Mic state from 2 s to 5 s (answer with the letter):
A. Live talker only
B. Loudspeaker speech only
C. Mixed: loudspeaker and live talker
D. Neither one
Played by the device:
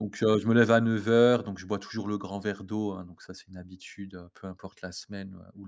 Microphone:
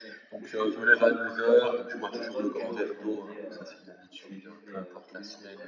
C